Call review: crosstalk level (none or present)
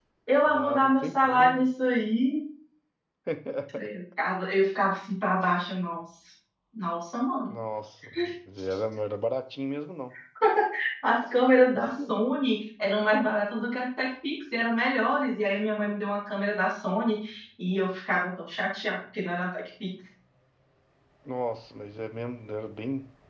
present